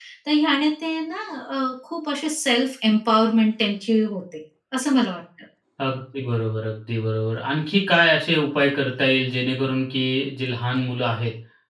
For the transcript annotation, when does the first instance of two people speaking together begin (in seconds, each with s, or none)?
none